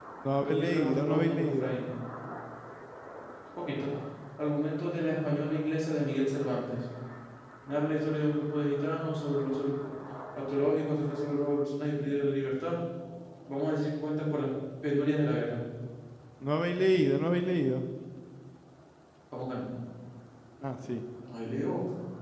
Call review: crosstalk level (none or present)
present